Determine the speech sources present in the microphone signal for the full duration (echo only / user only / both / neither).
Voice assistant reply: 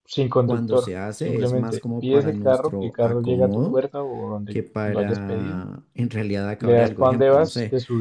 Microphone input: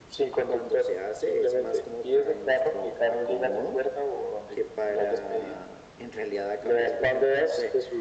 echo only